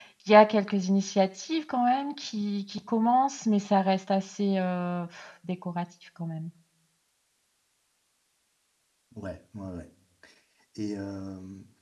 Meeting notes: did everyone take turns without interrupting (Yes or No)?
Yes